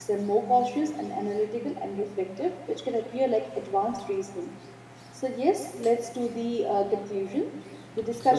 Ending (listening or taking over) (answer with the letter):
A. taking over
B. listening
B